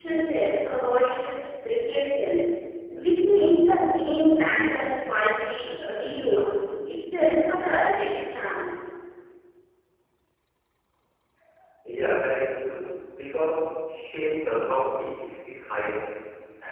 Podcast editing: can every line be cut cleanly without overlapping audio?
Yes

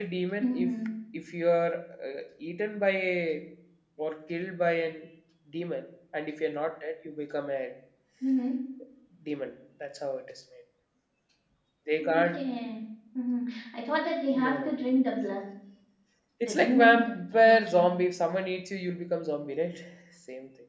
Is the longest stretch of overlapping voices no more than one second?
No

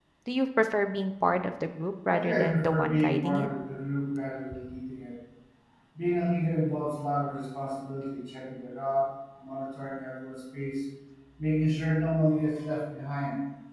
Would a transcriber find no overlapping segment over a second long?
No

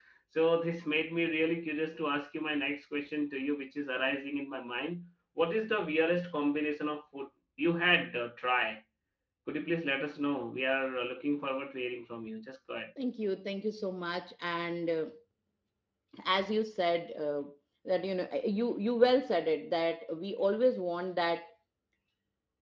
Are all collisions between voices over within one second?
Yes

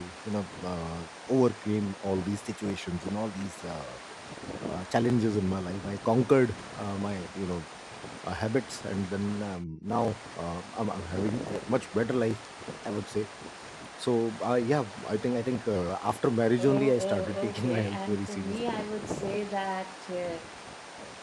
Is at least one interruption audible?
Yes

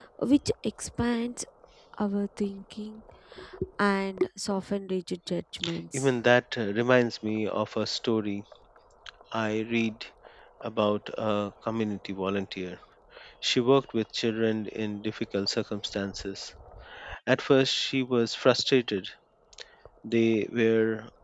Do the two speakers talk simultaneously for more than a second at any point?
No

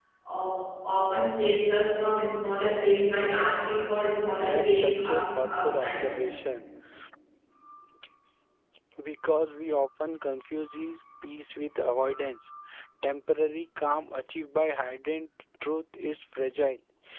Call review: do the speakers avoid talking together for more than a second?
No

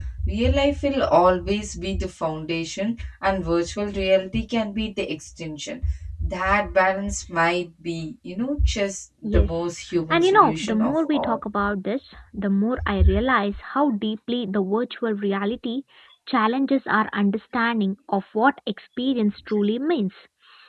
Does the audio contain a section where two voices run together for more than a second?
Yes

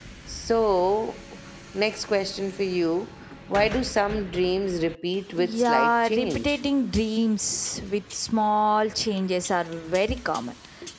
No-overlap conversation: No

